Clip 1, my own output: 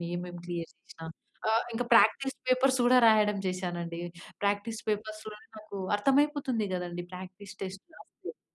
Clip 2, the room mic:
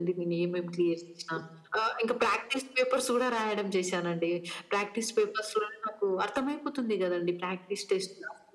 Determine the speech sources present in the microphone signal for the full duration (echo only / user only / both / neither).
echo only